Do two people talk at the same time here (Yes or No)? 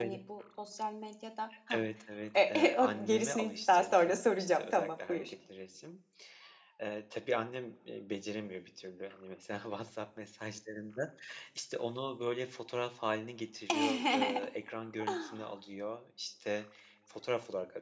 Yes